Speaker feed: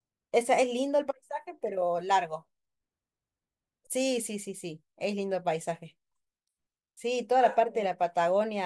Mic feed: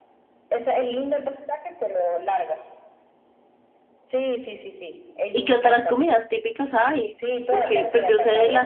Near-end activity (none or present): present